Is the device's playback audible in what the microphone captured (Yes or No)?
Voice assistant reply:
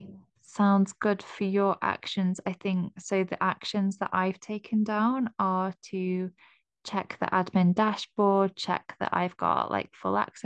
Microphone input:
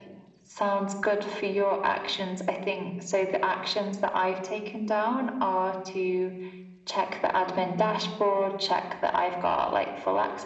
Yes